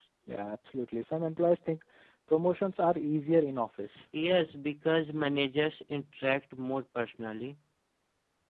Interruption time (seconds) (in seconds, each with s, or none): none